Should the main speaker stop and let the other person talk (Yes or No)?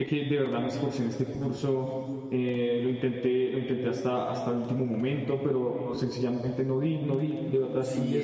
Yes